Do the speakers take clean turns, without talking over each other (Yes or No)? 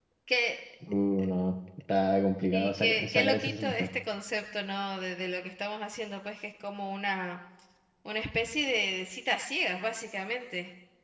No